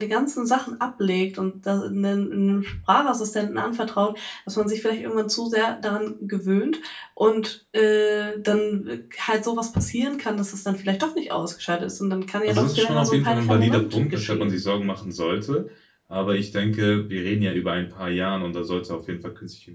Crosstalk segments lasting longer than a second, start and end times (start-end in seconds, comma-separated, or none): 12.5-14.6